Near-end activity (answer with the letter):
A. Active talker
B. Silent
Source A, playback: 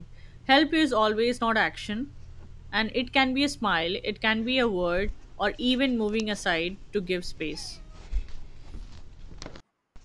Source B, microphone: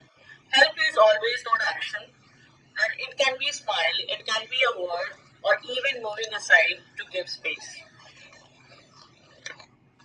B